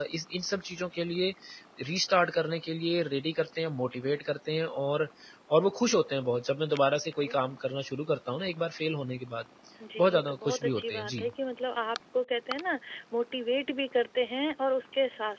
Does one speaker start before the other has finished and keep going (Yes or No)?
Yes